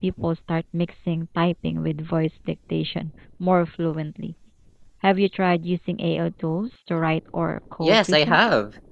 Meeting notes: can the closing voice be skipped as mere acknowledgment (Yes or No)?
No